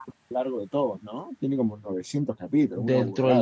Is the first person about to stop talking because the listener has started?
Yes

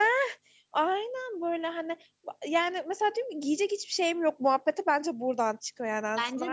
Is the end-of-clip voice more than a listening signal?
Yes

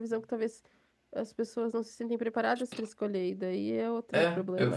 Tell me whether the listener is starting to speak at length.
Yes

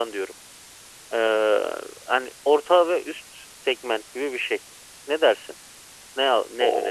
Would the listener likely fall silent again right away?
No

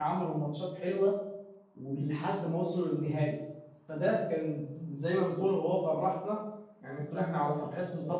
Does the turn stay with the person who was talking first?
Yes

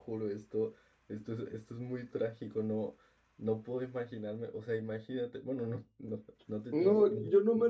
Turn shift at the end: Yes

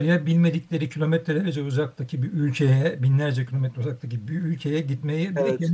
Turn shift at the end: No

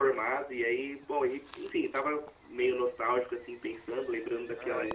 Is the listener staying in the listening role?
Yes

